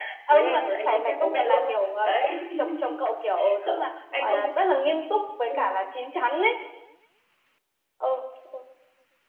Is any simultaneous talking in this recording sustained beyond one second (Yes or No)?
Yes